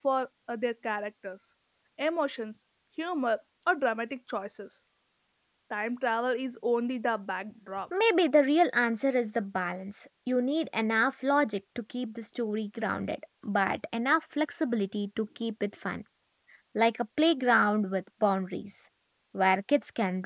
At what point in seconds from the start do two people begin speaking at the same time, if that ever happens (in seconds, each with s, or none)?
none